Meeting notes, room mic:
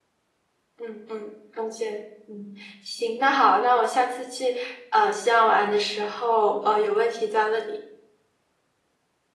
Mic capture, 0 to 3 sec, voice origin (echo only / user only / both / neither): user only